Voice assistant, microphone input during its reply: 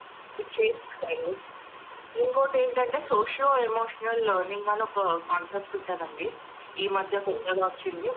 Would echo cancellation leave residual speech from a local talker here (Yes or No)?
No